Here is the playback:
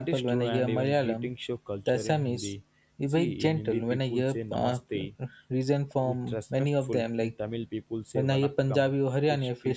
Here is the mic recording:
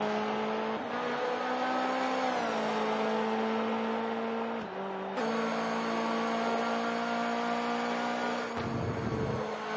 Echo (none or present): none